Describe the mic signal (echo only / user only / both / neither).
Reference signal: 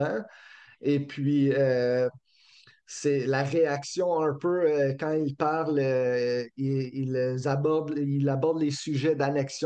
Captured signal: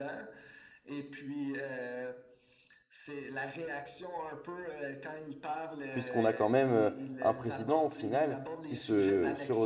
both